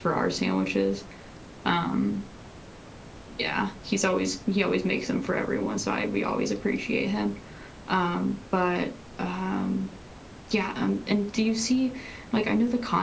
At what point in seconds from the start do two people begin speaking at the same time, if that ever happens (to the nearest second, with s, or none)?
none